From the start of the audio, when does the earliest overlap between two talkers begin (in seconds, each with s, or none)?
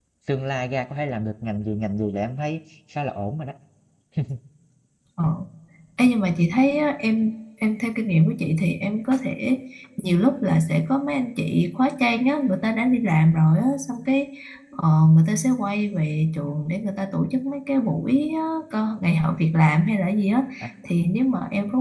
none